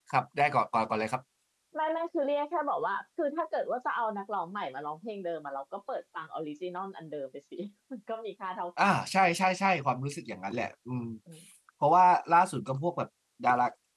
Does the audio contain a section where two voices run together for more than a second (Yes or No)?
No